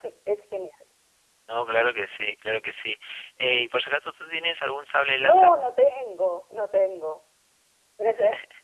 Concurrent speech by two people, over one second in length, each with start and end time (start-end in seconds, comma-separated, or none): none